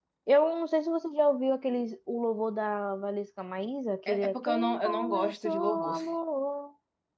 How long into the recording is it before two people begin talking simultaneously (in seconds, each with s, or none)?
4.1 s